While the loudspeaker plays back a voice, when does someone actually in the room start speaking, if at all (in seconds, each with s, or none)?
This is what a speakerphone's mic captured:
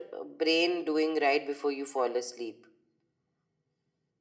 none